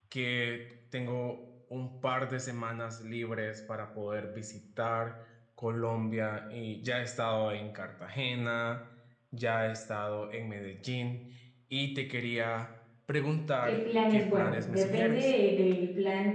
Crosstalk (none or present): present